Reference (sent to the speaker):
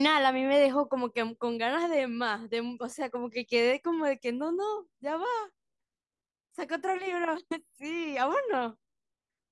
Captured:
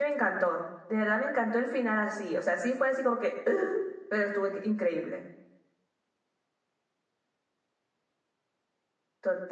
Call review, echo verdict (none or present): none